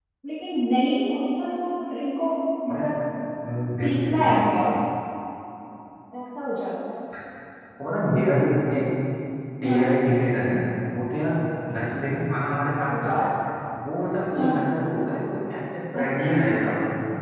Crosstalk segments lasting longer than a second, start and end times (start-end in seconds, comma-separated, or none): none